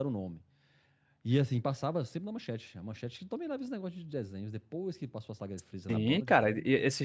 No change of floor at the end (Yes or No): No